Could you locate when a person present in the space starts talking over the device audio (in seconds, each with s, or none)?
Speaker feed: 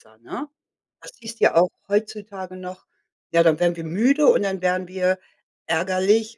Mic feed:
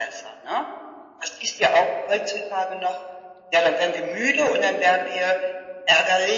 none